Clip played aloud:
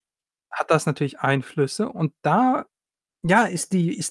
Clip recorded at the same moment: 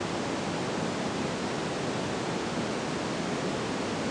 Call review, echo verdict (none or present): none